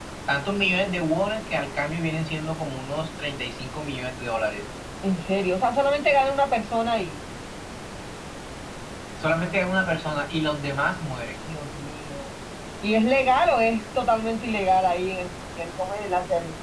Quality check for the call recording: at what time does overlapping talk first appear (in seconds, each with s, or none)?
none